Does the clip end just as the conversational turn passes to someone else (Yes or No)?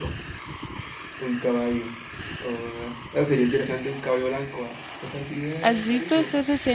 Yes